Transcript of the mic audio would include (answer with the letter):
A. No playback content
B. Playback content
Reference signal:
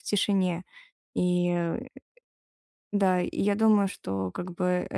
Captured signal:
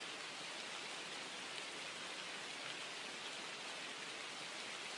A